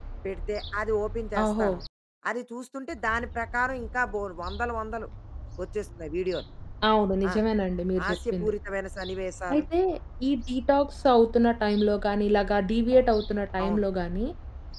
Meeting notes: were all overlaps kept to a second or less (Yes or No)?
Yes